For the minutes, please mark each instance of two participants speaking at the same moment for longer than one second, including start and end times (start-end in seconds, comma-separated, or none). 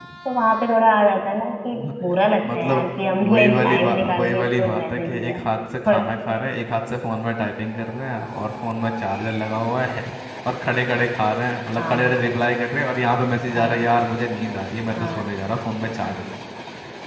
3.2-5.4